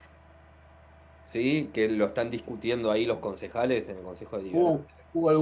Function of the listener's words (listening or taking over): taking over